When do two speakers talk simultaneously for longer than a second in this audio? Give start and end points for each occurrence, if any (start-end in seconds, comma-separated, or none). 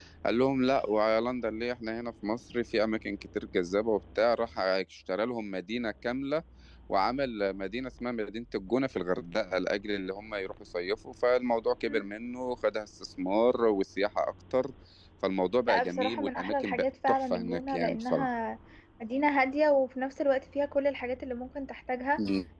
15.7-18.3